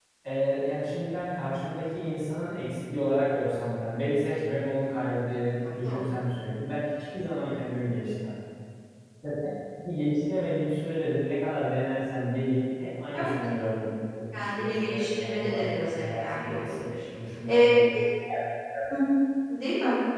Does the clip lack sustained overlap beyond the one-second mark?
No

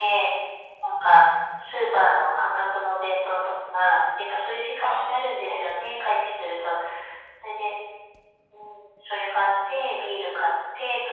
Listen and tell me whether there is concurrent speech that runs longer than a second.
Yes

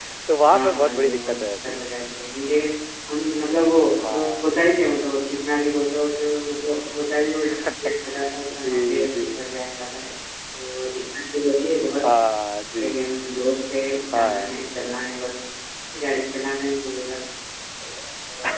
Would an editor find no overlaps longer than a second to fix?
No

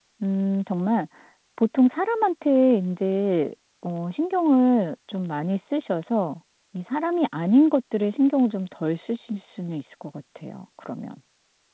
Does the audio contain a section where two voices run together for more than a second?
No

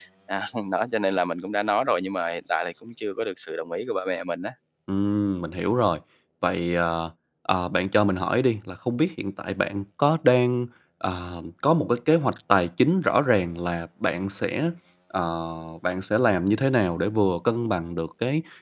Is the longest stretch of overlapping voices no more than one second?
Yes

